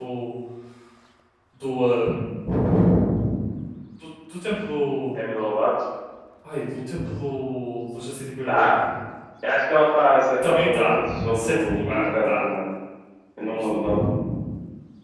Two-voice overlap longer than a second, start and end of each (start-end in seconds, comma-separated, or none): 10.4-12.4